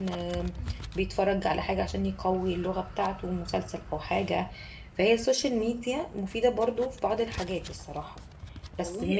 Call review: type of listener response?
taking over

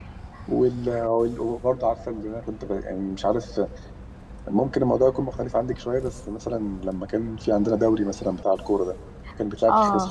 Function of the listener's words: taking over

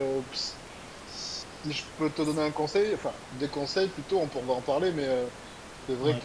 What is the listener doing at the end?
listening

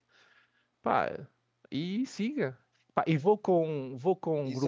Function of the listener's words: taking over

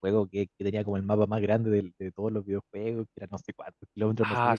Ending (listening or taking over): taking over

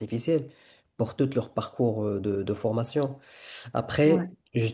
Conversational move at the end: listening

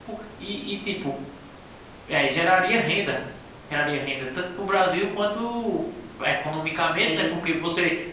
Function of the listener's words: listening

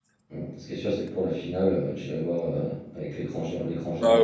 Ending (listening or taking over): taking over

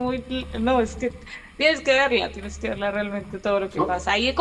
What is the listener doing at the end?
listening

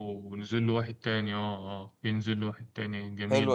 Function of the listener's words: taking over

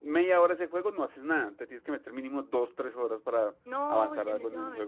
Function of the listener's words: taking over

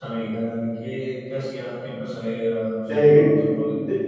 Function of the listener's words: taking over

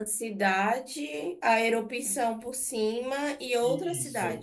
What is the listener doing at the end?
taking over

